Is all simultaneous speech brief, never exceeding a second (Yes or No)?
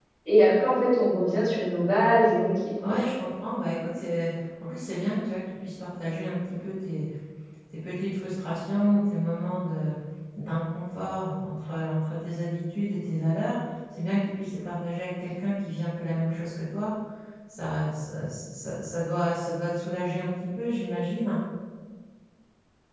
Yes